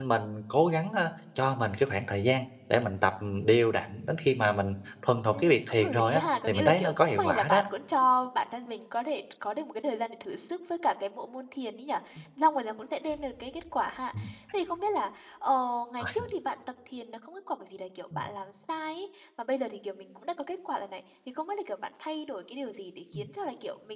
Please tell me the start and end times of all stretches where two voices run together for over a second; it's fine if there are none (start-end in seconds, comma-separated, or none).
5.3-7.6